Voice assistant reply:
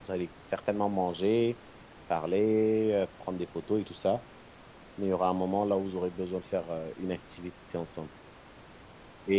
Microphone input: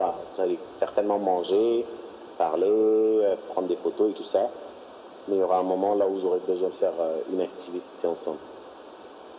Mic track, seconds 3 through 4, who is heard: echo only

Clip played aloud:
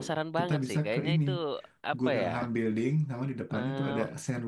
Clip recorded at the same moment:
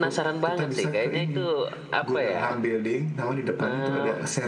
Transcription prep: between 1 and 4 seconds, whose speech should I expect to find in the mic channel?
echo only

